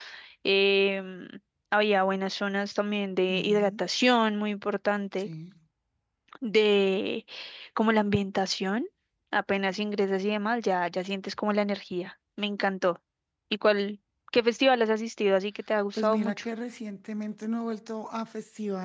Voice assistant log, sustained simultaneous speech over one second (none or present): none